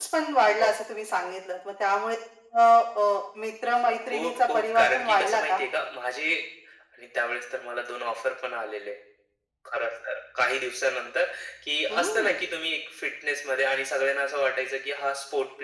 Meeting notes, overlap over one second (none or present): present